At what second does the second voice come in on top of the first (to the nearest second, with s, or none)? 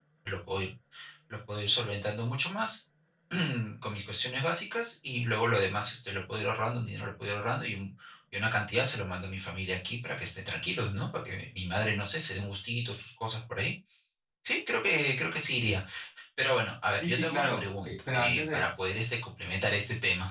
17 s